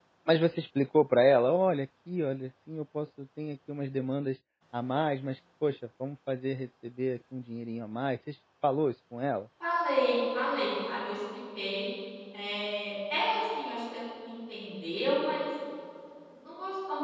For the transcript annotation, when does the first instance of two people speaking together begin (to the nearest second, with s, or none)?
none